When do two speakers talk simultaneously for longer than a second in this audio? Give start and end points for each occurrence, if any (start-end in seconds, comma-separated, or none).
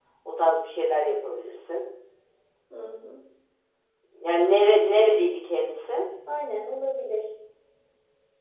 none